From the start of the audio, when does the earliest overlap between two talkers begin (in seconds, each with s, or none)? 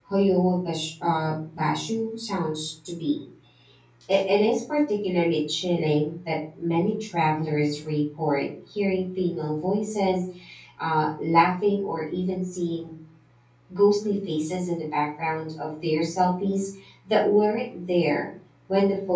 none